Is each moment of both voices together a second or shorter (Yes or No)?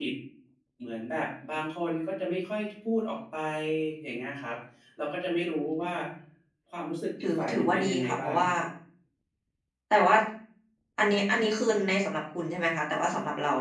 No